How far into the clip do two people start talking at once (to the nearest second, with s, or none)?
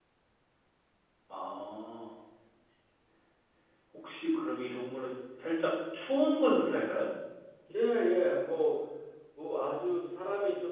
none